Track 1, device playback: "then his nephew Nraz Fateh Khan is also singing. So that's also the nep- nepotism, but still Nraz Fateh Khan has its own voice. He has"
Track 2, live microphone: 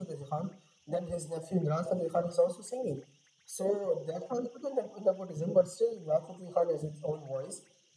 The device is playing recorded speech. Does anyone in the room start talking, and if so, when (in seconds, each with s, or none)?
none